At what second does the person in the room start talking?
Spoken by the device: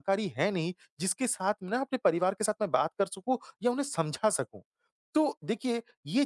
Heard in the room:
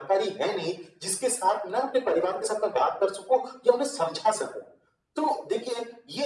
none

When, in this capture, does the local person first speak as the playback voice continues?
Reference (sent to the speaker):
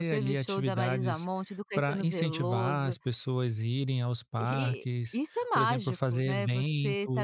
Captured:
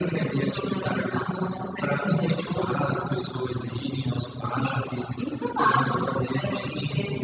none

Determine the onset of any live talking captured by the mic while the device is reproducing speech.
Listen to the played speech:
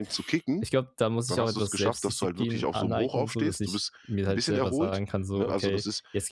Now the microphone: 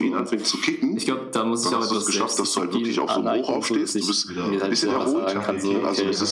4.2 s

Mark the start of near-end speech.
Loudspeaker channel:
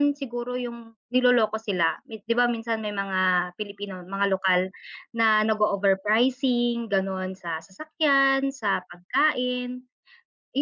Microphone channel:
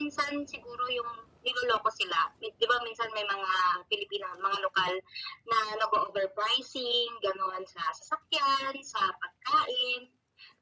none

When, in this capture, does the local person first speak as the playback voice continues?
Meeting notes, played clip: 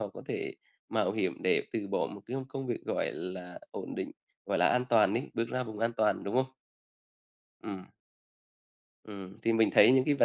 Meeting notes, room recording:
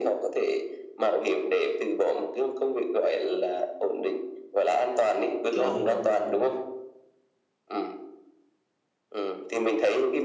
5.6 s

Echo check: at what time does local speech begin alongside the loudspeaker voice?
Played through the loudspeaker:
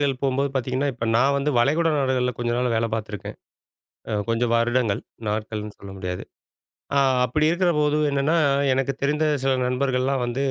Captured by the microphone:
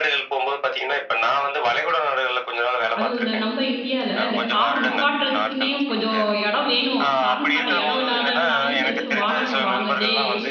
3.0 s

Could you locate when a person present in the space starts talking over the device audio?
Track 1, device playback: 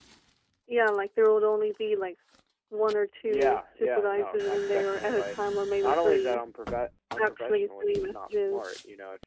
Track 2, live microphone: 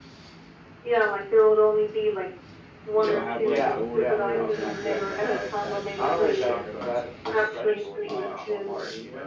2.9 s

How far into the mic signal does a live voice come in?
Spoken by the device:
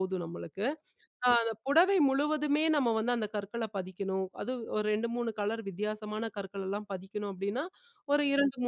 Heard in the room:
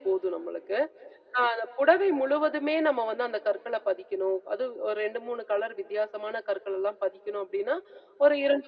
none

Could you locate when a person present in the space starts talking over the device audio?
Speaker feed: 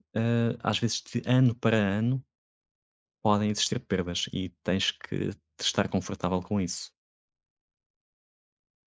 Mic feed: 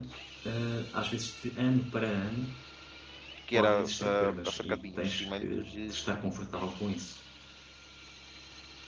3.5 s

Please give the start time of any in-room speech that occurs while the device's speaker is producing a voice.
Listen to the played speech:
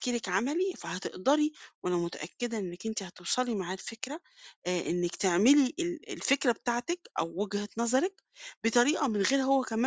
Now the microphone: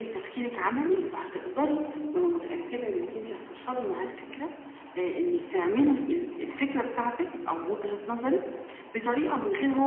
none

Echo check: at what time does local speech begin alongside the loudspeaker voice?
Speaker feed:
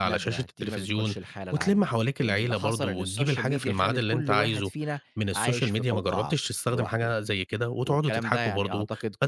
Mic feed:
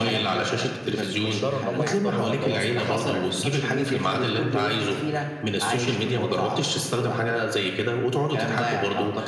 1.1 s

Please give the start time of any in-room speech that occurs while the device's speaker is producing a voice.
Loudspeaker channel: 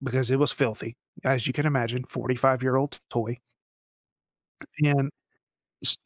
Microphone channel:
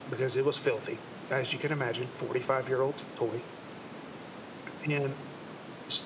none

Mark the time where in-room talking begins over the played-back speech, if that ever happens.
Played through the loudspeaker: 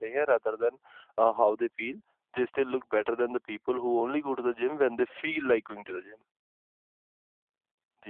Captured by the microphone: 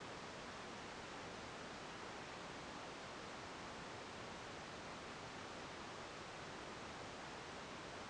none

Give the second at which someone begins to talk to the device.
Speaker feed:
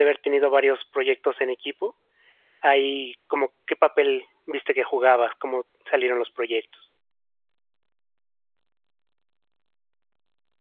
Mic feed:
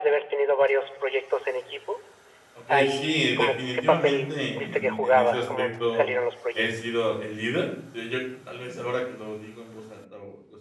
2.5 s

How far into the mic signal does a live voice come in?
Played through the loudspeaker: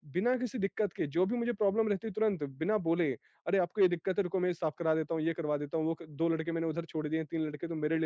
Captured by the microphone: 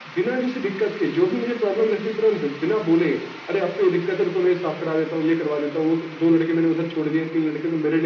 none

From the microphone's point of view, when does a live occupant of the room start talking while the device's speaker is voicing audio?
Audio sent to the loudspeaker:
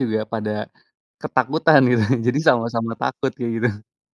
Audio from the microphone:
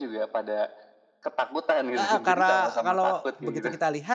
2.0 s

